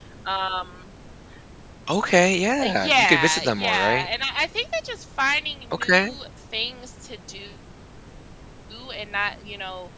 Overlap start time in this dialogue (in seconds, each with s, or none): 2.6 s